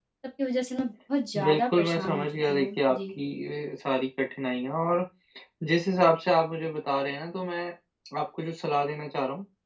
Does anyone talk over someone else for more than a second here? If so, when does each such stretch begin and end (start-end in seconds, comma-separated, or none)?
1.4-3.0